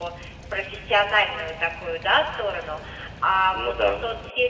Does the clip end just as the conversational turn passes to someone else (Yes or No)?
No